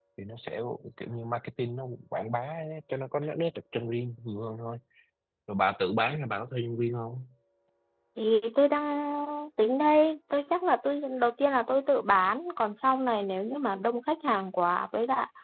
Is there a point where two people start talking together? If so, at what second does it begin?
none

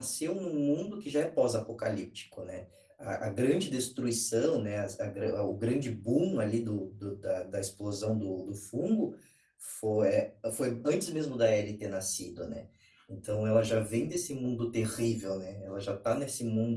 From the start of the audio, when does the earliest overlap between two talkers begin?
none

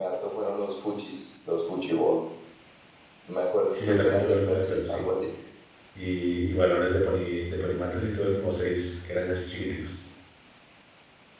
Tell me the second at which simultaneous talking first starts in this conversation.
3.7 s

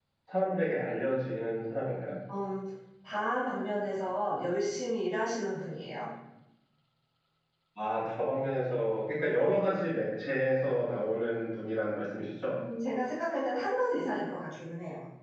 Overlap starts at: none

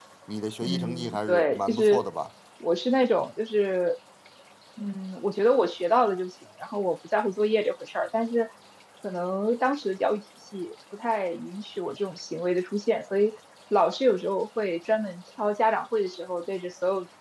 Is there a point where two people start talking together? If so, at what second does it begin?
0.6 s

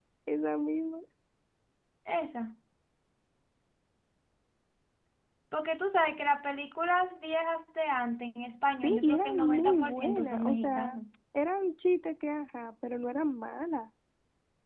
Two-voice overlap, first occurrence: 8.8 s

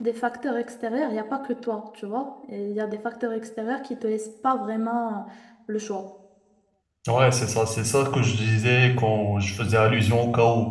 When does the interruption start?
none

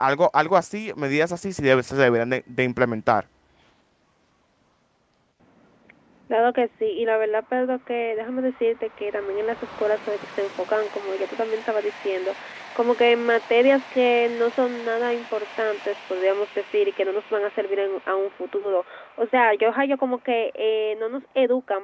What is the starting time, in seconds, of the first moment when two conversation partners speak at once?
none

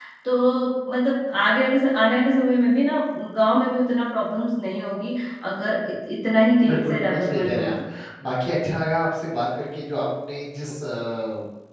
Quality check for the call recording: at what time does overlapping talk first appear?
6.6 s

